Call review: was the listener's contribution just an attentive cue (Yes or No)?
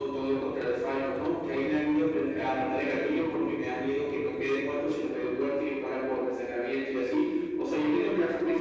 Yes